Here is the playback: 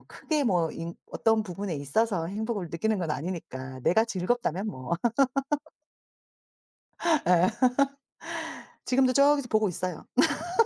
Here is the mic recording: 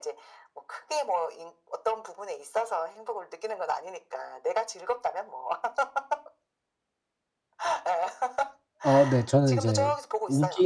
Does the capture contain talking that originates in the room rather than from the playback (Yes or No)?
Yes